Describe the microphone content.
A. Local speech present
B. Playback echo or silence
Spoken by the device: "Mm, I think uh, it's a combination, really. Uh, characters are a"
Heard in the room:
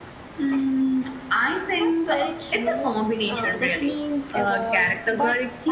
A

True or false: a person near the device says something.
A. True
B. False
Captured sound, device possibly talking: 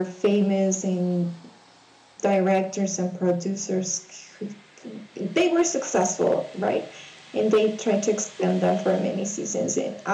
B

